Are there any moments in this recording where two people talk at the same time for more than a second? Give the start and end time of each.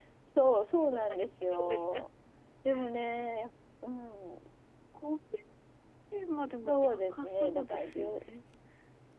0.7-2.1, 6.7-8.0

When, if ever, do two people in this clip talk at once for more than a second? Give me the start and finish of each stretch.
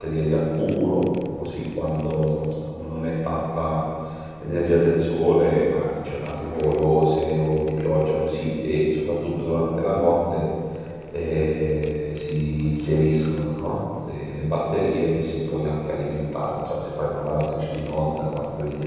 none

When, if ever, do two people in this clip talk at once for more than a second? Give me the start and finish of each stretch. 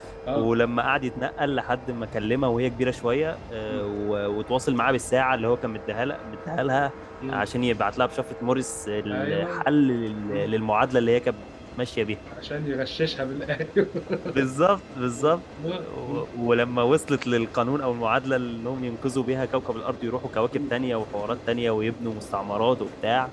none

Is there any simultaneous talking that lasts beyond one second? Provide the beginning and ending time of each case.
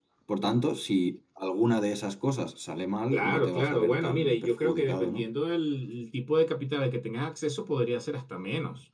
3.1-5.2

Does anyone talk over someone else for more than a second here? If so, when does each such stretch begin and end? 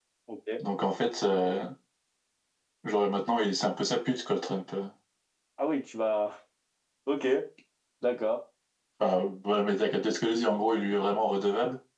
none

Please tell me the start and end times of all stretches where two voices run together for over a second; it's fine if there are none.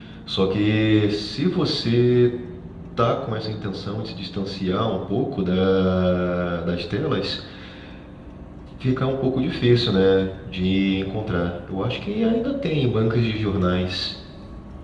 none

